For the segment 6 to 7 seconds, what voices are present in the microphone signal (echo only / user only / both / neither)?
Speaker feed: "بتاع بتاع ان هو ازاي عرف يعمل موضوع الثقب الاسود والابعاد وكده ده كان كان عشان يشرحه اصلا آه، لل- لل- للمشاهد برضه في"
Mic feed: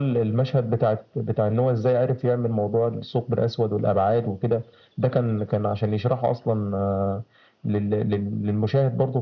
echo only